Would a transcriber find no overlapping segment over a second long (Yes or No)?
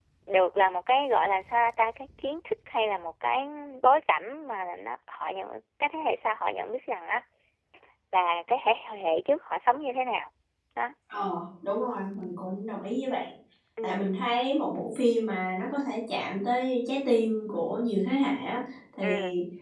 Yes